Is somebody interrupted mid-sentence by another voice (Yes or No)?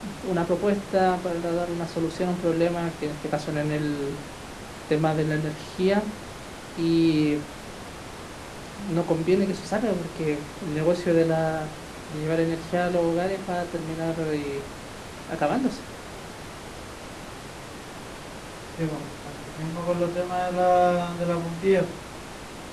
No